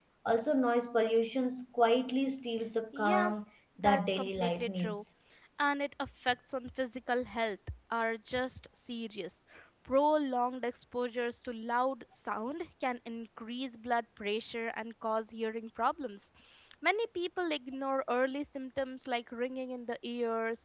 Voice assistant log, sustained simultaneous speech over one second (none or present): present